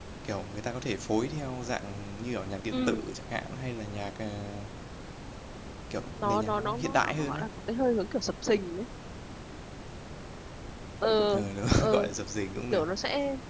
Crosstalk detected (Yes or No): Yes